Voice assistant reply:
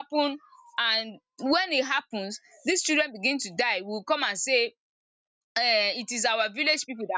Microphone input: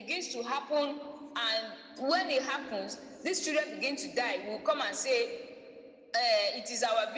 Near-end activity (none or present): none